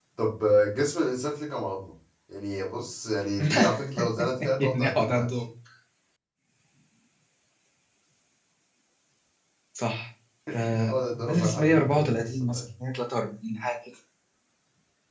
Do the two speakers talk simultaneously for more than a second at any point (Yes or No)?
Yes